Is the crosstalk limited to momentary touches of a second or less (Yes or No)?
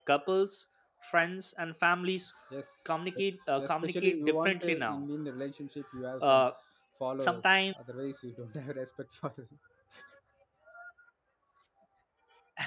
No